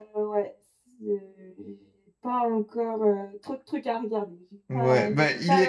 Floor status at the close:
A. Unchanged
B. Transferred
B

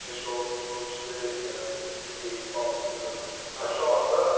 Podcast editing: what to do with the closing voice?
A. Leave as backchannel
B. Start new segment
A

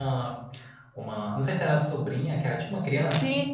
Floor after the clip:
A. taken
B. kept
A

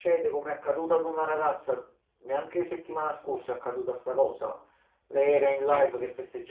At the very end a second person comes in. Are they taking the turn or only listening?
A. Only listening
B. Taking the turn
A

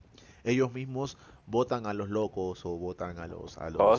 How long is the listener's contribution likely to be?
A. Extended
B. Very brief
B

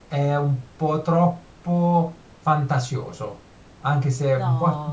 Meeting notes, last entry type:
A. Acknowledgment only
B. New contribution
A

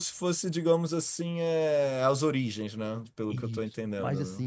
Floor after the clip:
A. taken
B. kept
A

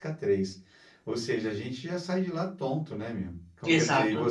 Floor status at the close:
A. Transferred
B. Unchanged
B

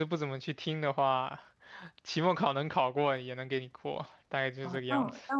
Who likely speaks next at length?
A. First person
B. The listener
B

